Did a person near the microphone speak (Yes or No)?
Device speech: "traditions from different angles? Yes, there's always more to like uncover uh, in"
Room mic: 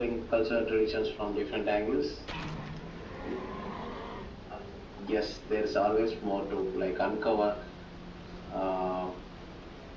No